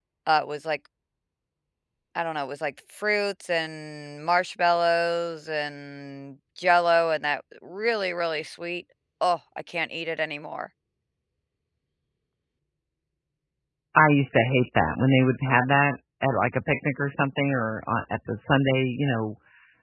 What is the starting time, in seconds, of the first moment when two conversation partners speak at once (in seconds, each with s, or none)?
none